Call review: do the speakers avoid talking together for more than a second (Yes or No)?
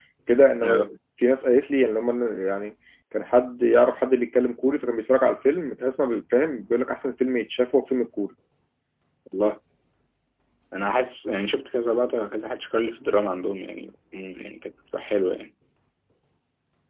Yes